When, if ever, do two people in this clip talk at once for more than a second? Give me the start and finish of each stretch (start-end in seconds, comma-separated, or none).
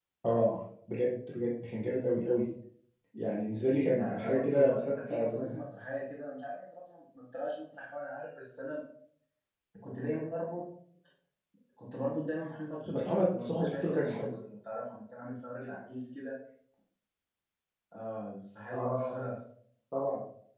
3.9-5.6, 12.8-14.3